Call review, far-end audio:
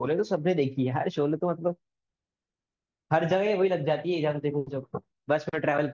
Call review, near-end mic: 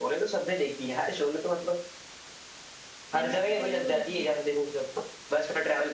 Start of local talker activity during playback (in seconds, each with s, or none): 3.1 s